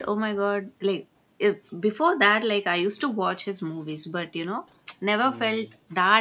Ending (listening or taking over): listening